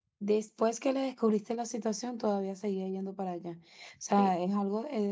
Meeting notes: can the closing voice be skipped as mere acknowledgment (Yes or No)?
Yes